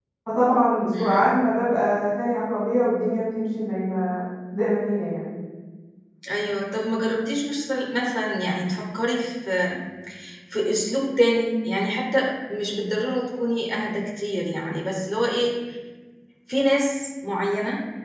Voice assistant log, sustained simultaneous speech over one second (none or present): none